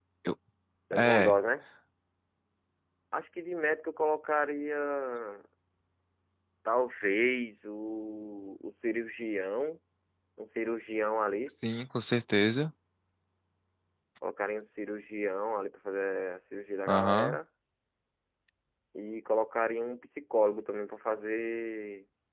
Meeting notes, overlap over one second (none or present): none